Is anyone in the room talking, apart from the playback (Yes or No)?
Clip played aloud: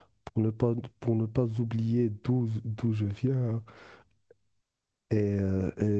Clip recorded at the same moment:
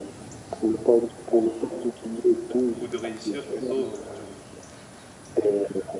Yes